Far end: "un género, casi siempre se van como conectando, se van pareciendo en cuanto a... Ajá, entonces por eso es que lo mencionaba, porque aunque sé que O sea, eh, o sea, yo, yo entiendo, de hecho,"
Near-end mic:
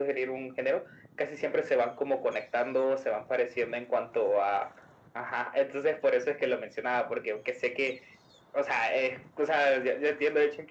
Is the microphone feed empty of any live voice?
Yes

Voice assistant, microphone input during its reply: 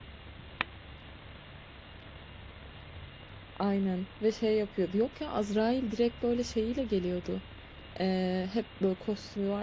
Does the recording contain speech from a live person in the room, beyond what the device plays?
Yes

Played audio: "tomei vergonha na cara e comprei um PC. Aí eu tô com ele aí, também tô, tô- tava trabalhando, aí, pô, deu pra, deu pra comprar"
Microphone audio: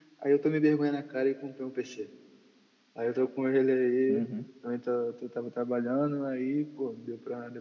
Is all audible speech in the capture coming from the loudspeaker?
No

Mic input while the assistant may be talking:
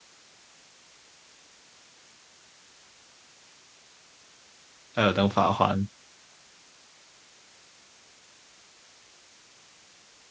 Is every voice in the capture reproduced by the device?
No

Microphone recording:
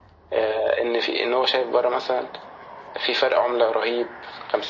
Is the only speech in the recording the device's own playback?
Yes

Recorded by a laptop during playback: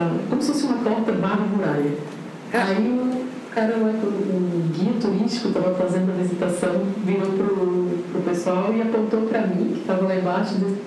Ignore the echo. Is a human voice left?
Yes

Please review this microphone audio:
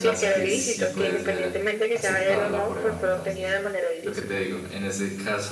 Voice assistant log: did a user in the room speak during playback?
Yes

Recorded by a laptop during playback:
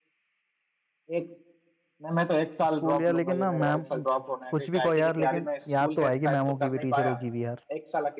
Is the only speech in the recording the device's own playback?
No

